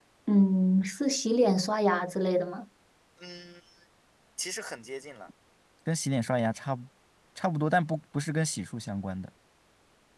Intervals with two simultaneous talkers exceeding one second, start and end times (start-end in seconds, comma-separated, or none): none